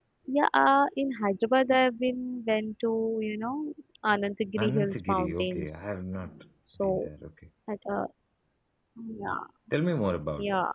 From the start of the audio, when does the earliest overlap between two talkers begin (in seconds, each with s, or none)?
4.6 s